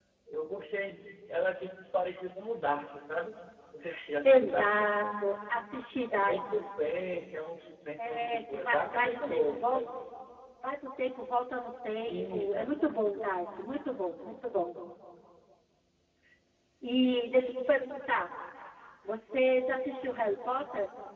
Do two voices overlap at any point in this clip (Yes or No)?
Yes